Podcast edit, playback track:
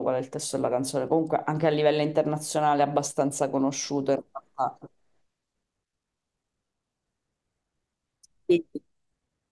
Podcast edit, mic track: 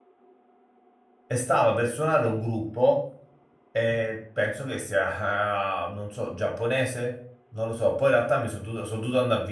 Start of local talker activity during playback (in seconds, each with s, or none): 1.3 s